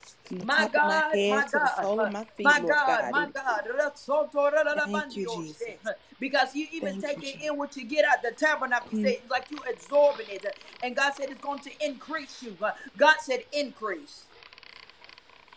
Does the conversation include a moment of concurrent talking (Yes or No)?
Yes